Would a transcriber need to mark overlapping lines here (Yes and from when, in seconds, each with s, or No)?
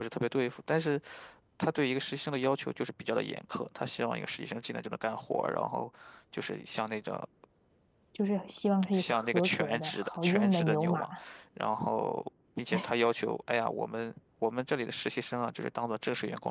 Yes, from 8.9 s